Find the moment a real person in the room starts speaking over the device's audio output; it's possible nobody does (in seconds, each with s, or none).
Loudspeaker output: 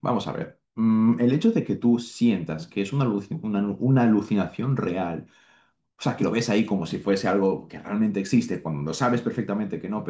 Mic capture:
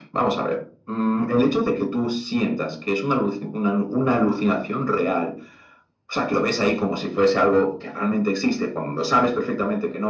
none